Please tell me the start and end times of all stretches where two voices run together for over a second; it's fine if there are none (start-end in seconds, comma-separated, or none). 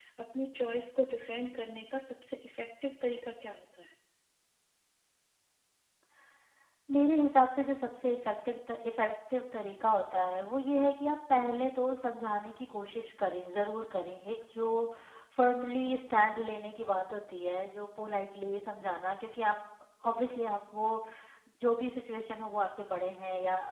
none